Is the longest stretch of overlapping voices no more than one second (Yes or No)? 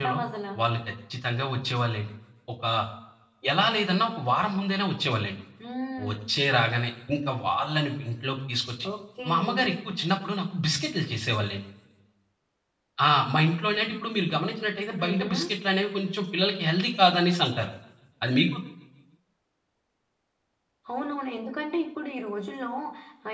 Yes